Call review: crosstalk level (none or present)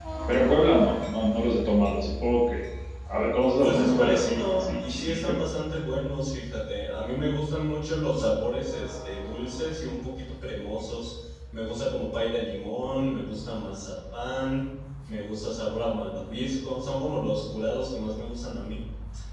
present